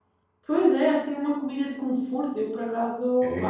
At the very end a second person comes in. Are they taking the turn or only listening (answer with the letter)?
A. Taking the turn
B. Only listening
A